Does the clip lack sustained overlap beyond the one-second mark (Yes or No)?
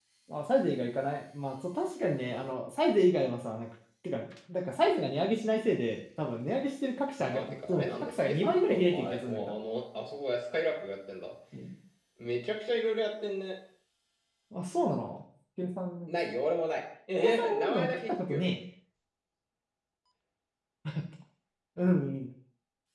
No